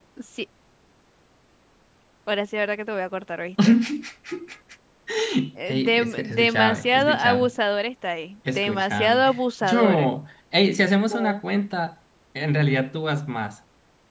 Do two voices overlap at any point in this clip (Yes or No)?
Yes